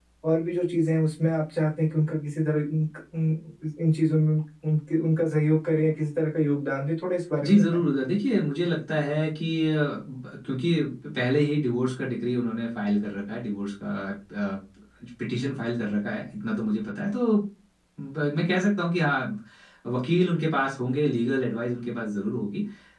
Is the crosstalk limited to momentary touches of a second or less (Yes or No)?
Yes